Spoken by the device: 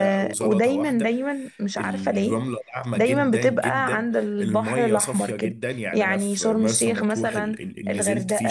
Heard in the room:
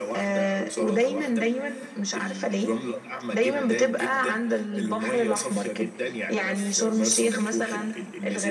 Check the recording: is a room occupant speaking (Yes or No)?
No